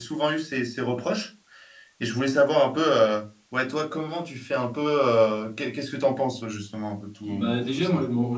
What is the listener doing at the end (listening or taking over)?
taking over